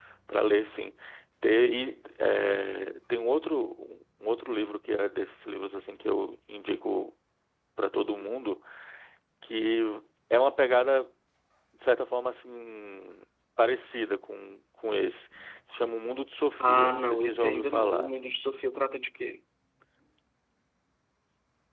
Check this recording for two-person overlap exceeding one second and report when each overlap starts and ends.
16.6-18.1

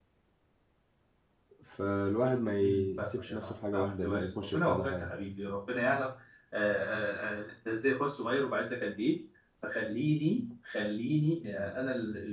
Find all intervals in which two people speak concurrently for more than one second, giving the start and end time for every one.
2.6-5.1

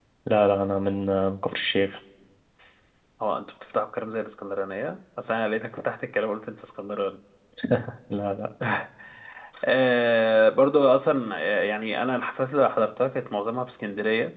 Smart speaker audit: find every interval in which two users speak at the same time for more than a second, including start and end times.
none

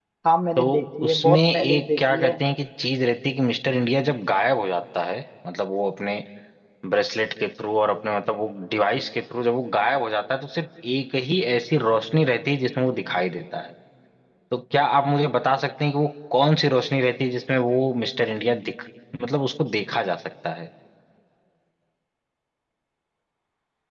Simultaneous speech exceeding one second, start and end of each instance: 1.1-2.4

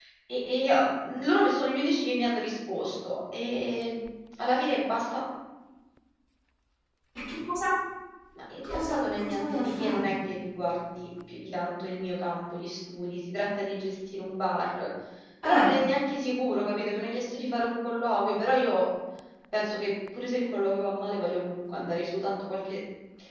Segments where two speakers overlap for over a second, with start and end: 8.6-10.1

